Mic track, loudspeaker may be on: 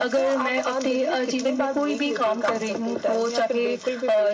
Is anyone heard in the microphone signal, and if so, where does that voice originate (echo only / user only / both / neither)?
echo only